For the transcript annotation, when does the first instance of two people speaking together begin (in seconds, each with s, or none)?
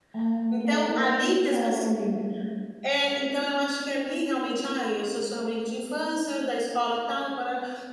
0.5 s